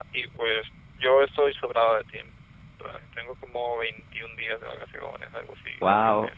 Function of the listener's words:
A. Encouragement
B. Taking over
A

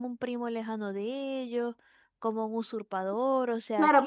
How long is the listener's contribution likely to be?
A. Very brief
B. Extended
B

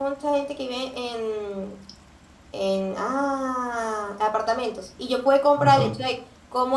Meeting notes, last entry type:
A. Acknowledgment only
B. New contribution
A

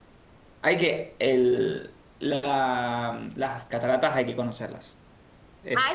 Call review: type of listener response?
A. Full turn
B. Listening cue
A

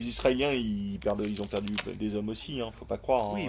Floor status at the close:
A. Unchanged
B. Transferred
B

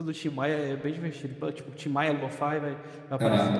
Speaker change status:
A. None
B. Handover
B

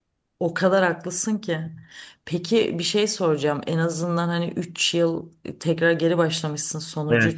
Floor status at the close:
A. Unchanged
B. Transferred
A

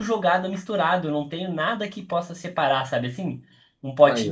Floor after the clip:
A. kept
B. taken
A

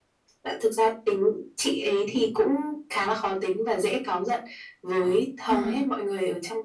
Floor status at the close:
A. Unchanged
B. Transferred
A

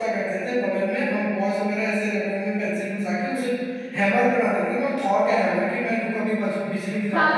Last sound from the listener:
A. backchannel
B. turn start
B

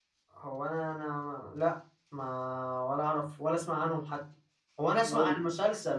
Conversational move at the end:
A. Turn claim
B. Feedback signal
B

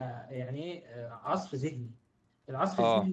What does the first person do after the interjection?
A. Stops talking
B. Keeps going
B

